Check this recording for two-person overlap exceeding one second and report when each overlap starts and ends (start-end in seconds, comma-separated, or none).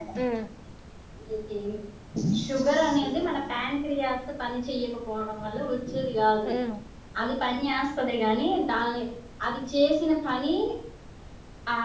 2.5-3.7